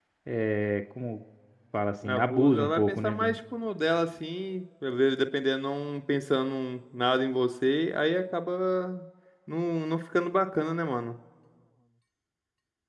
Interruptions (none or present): present